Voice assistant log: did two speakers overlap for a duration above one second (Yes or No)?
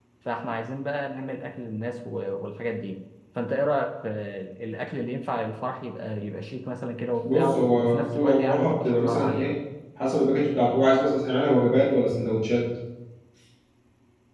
Yes